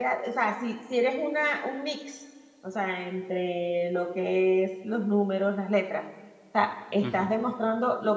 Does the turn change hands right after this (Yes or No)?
No